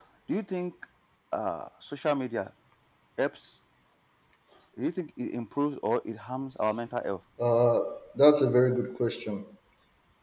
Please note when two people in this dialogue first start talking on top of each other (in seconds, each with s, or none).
none